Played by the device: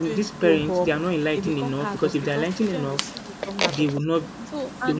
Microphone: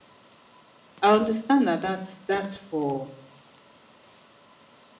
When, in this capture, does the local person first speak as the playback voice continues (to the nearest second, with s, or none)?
1 s